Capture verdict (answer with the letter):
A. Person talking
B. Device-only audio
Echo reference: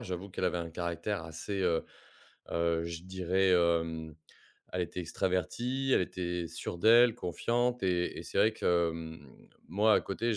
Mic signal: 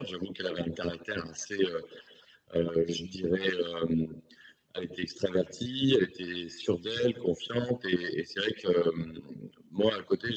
B